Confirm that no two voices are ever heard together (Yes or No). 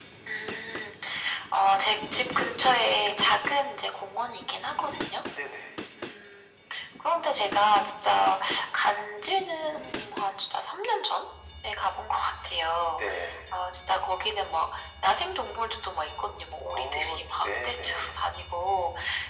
No